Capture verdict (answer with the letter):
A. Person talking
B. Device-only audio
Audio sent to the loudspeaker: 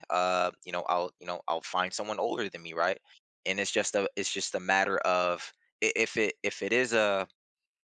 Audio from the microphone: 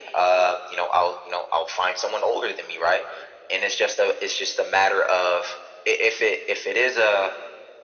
B